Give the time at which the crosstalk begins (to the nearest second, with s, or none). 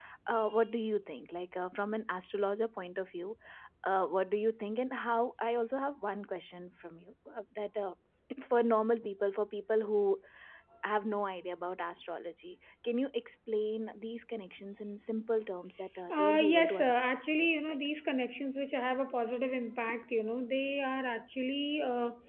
16 s